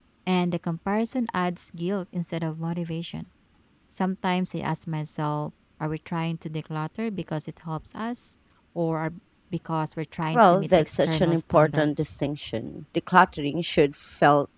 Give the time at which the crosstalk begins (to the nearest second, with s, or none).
10 s